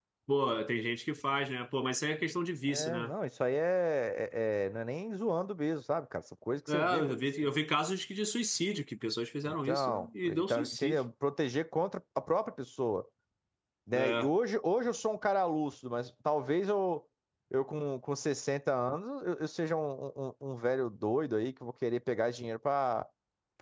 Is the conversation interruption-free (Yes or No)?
No